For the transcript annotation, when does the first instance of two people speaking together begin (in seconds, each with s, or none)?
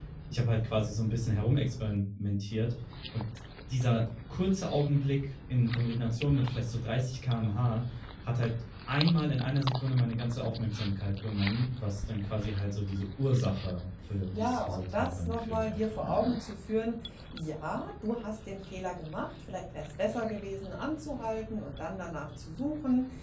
14.3 s